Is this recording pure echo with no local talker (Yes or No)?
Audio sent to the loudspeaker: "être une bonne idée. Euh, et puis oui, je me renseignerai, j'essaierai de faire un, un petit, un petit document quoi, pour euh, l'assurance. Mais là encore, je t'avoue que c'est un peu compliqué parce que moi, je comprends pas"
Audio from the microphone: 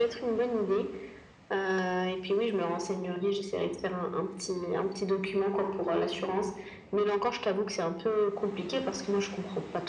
Yes